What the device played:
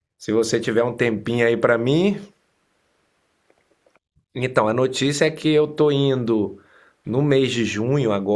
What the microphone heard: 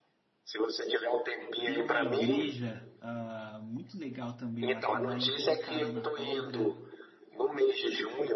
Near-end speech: present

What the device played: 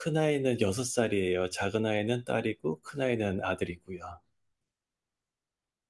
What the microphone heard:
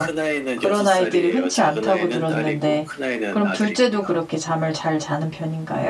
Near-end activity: present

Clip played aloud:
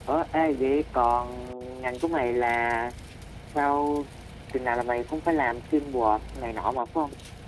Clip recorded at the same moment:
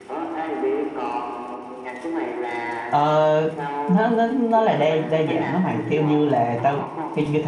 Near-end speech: present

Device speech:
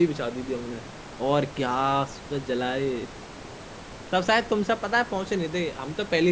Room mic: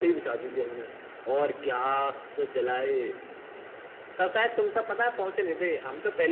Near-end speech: none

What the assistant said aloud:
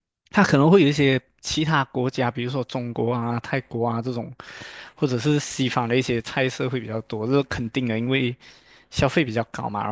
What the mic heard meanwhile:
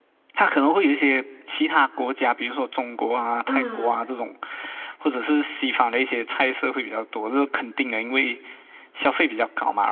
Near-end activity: present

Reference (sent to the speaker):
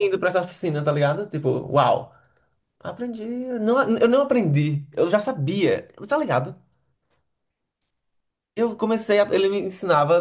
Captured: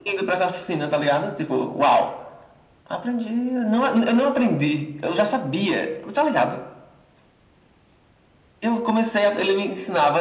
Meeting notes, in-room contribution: none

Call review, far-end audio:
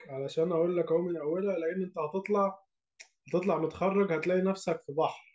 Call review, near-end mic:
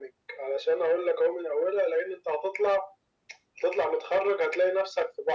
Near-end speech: none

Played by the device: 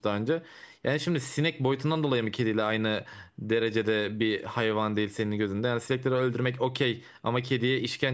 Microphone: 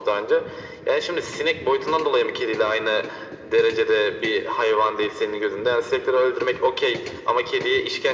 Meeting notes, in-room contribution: none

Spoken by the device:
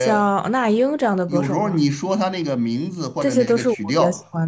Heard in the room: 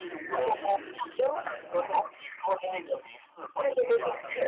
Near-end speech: present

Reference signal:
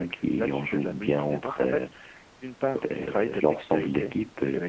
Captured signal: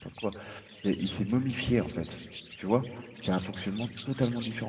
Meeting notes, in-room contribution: present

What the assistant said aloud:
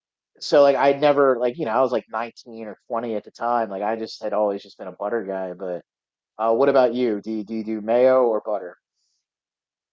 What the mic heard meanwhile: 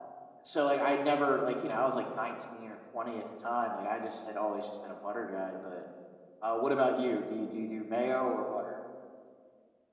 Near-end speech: none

